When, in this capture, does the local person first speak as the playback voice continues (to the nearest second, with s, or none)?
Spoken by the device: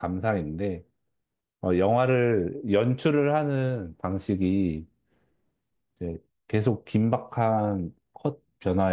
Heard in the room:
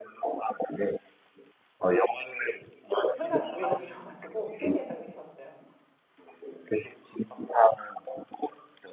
3 s